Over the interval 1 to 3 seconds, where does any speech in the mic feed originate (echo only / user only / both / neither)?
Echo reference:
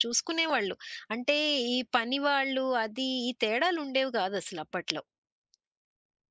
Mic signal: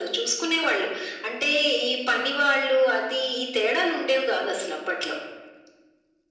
echo only